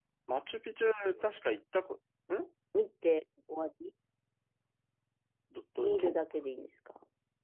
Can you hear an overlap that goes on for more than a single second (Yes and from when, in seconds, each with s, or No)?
No